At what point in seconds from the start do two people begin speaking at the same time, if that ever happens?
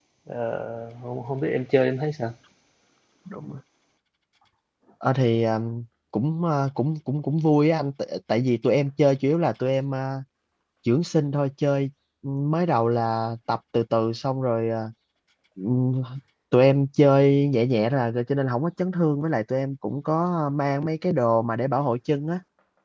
none

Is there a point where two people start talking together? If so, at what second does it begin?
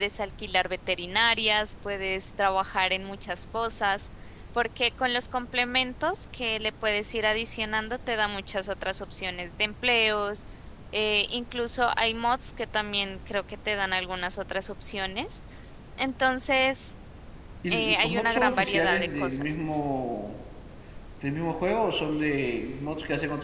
17.7 s

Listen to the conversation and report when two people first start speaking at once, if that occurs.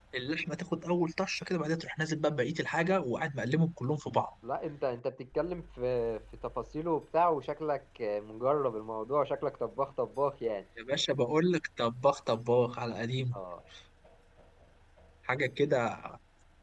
none

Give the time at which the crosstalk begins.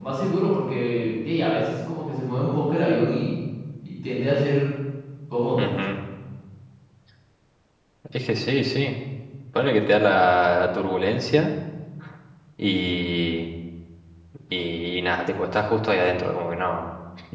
none

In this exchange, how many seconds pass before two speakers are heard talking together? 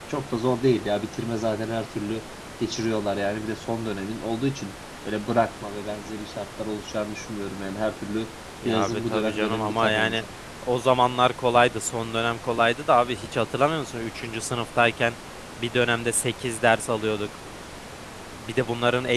8.6 s

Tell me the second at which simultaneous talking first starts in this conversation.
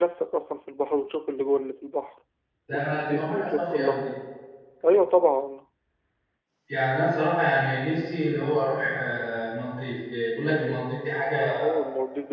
2.7 s

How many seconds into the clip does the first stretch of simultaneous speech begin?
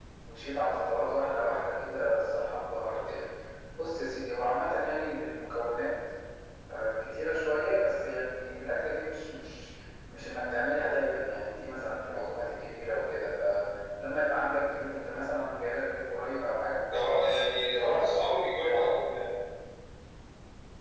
none

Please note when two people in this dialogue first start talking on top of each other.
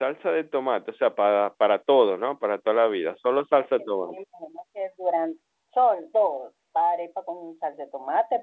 none

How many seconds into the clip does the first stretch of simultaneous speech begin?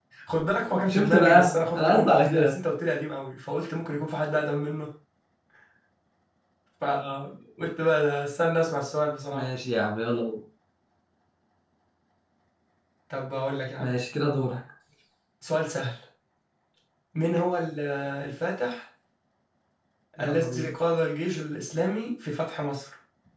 0.9 s

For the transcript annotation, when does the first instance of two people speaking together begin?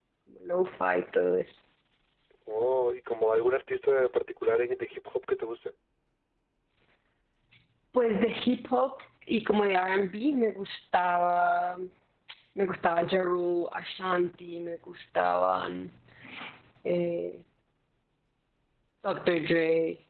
none

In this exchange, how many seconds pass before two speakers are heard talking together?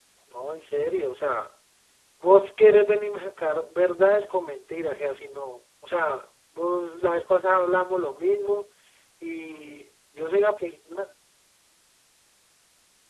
none

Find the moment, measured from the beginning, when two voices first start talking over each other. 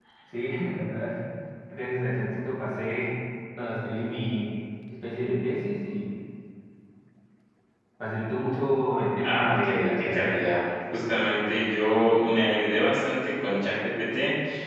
9.2 s

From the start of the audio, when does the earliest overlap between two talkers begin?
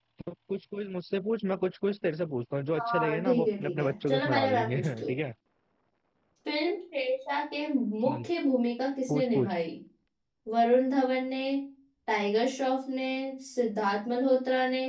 2.8 s

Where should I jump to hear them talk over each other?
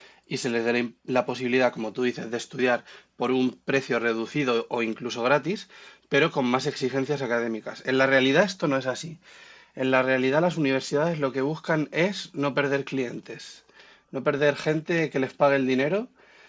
none

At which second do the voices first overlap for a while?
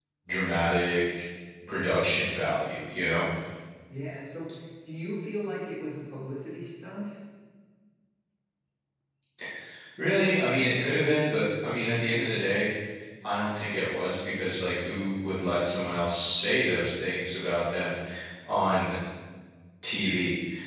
none

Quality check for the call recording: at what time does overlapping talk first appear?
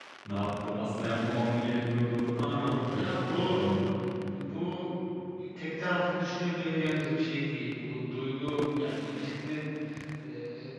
2.4 s

